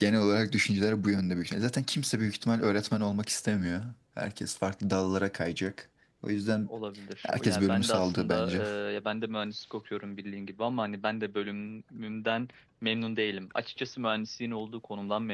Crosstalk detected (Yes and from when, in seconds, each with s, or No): Yes, from 7.2 s